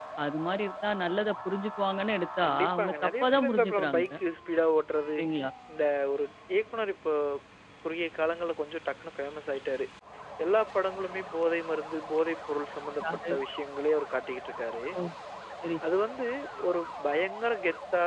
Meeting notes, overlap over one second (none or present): present